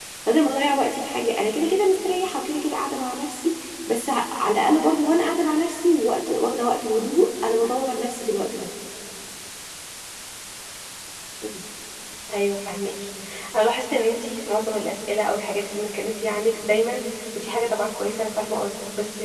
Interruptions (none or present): none